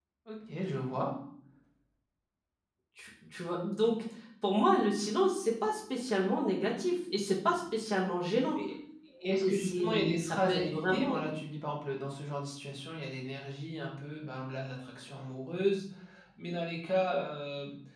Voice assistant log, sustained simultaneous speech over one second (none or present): present